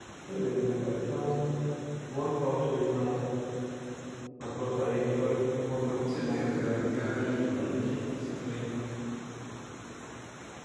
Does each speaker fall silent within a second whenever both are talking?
No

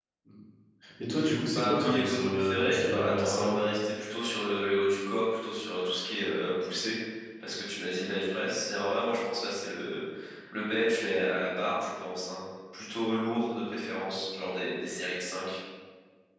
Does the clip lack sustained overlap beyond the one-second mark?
No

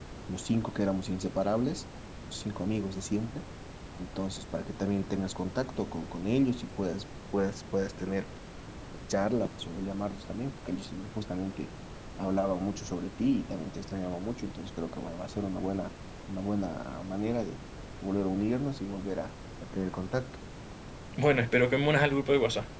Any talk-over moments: No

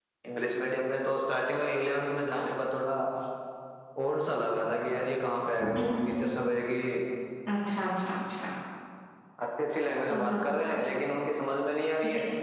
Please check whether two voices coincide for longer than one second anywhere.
No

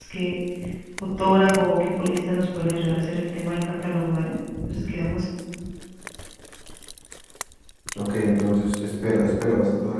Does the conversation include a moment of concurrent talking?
No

